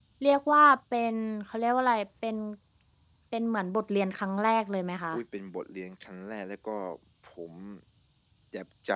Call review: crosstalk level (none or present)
none